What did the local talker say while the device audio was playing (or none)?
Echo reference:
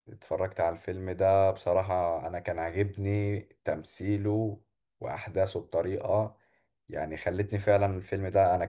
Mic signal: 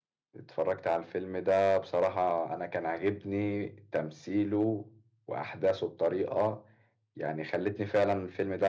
none